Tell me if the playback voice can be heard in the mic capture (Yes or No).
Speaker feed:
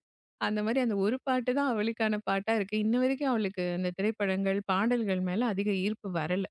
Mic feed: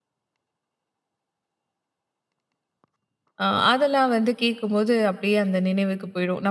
No